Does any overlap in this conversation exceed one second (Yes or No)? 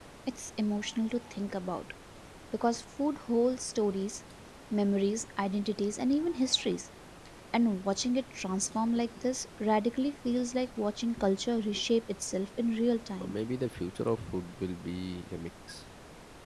No